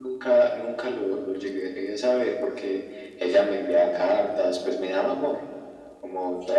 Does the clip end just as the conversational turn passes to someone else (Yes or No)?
Yes